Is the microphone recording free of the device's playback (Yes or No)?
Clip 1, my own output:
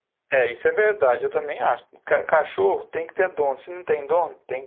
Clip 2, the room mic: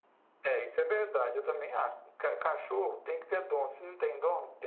No